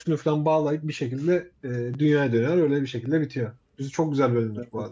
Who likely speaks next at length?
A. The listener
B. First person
A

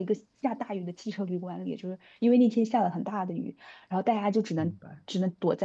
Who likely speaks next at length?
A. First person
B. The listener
A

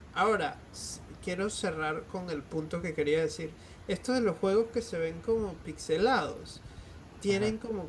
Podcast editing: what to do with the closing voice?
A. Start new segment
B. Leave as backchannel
B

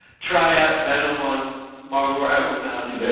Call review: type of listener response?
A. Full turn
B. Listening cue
A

